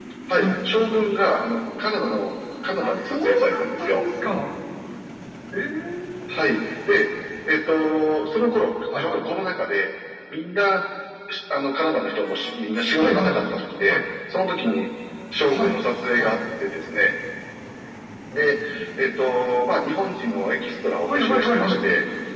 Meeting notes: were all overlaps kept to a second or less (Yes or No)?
No